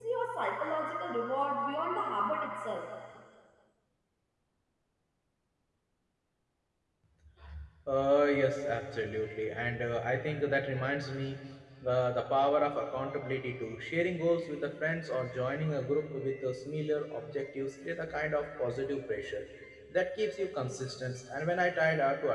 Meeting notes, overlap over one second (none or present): none